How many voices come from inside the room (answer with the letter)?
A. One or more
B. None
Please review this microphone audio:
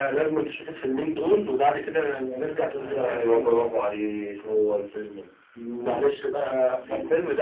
B